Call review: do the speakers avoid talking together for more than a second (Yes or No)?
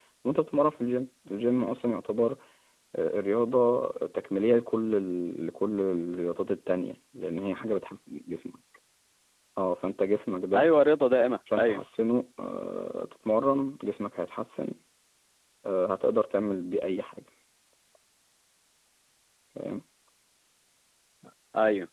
Yes